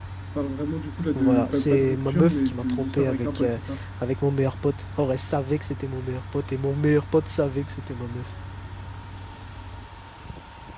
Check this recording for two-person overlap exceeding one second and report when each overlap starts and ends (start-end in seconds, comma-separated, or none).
1.2-3.5